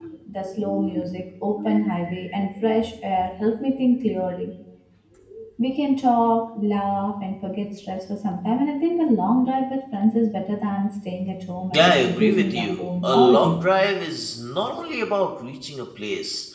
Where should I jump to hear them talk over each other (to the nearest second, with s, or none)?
12 s